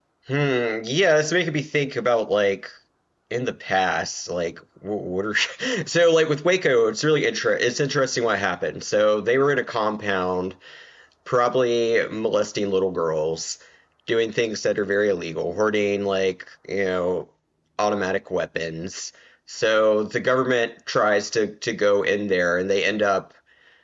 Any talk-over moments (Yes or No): No